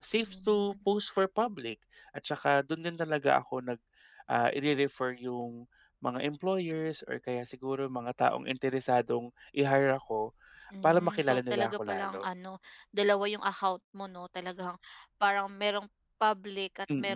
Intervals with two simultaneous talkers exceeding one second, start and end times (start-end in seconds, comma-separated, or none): 10.8-12.2